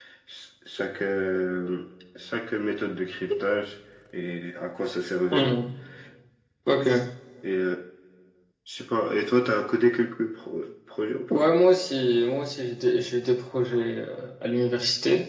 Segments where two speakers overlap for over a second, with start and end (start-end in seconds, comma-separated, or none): none